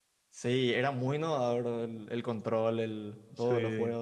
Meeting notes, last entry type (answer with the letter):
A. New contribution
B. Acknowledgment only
A